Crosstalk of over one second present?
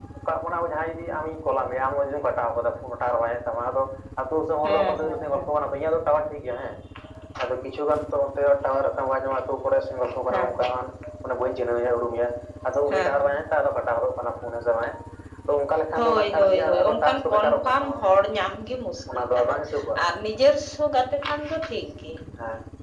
Yes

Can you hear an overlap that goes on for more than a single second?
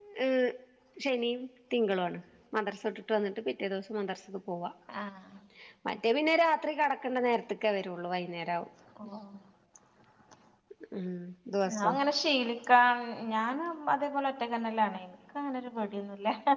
No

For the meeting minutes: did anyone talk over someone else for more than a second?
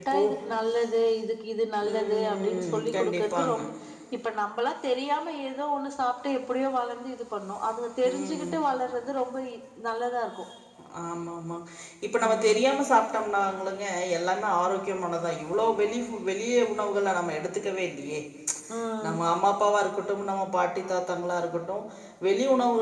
Yes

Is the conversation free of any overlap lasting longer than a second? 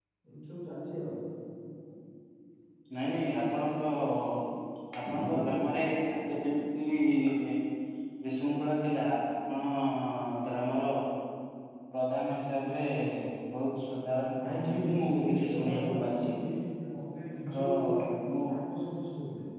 No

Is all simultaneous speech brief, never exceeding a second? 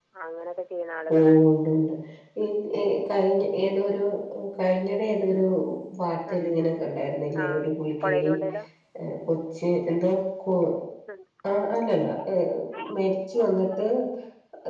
Yes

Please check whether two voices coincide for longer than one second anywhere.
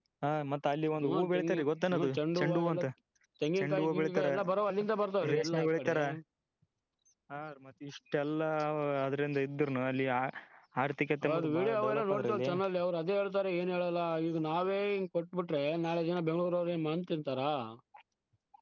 Yes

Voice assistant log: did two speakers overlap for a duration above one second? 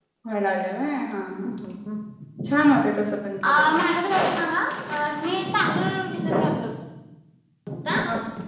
No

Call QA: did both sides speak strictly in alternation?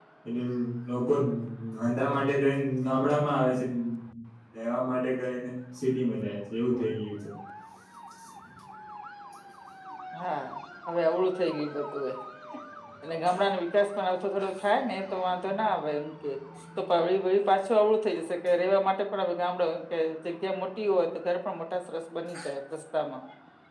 Yes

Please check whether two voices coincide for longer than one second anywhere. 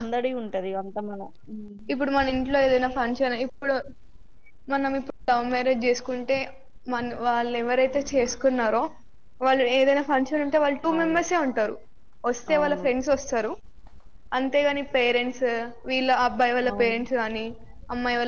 No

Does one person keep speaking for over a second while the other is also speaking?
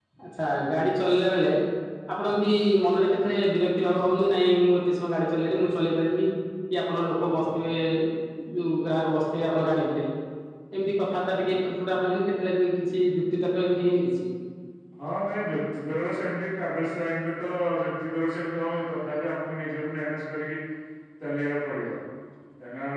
No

